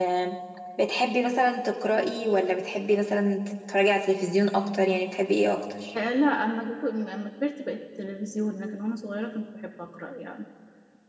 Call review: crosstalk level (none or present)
none